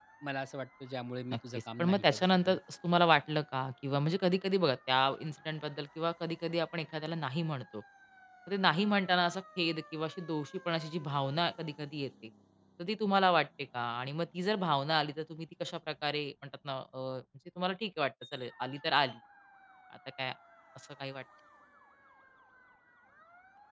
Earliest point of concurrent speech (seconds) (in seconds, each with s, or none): 1.3 s